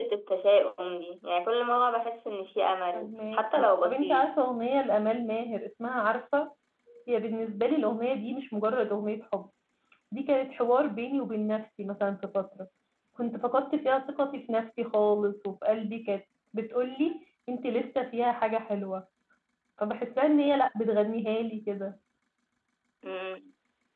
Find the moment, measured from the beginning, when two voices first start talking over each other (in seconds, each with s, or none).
2.9 s